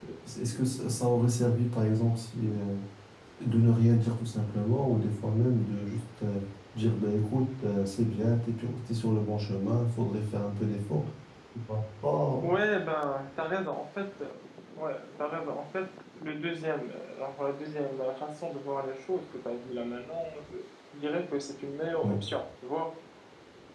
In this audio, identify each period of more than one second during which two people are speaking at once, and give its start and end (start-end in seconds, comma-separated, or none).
none